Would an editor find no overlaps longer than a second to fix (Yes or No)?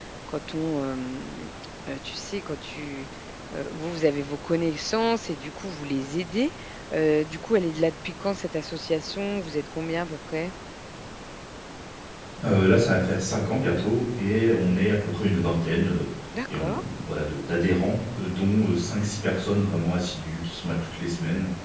Yes